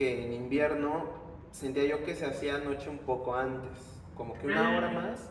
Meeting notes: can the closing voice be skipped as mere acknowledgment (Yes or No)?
Yes